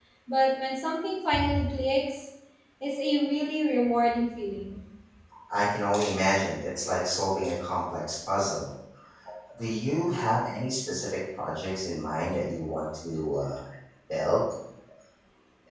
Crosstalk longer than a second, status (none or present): none